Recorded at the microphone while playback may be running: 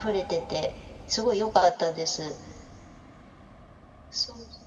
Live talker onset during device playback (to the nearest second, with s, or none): none